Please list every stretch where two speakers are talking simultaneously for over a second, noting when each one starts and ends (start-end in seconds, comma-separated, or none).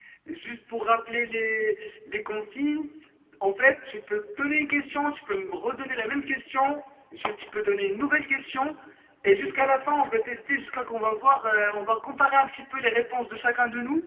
none